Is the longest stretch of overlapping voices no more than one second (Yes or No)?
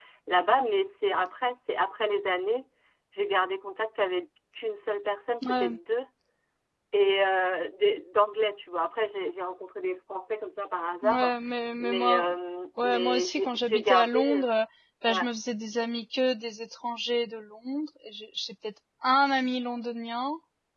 No